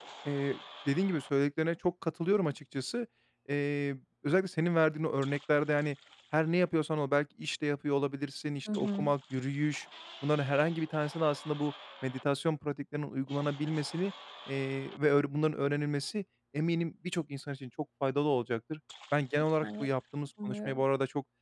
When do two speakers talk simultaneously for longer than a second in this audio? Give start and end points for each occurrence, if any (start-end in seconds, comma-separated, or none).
none